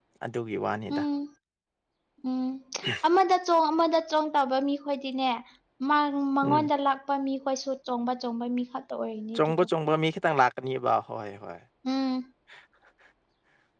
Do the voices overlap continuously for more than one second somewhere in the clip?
No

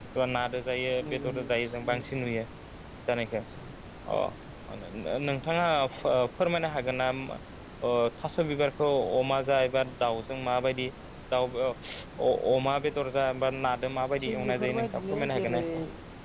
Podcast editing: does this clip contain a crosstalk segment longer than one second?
Yes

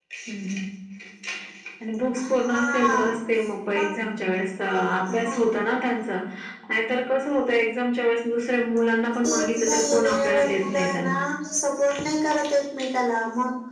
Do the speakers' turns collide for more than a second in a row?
Yes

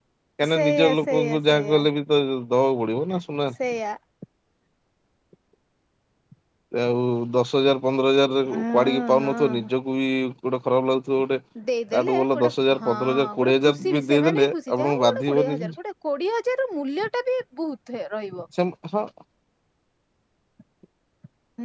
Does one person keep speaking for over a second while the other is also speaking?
Yes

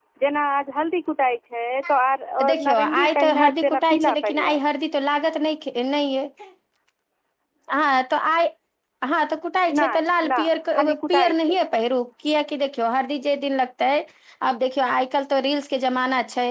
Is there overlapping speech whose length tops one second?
Yes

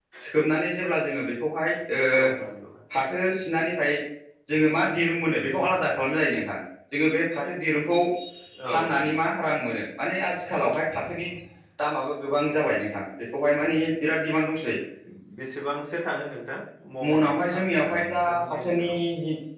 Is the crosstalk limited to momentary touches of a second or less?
No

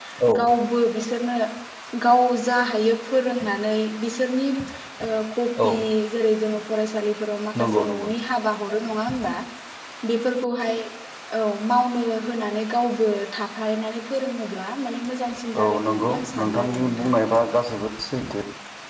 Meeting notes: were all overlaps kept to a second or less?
No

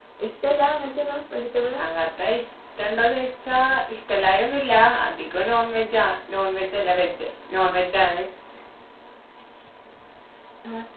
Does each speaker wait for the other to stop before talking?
Yes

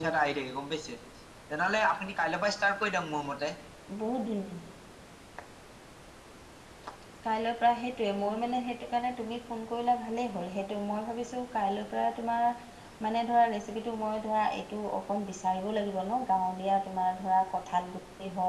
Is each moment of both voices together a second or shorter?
Yes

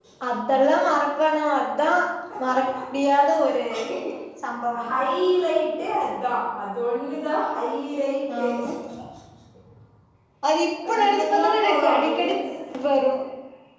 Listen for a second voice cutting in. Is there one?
Yes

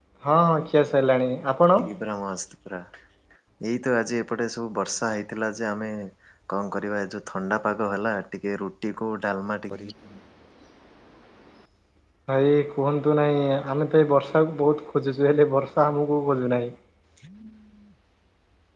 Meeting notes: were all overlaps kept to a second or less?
Yes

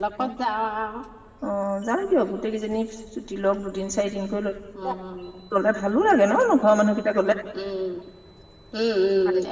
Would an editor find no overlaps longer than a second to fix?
Yes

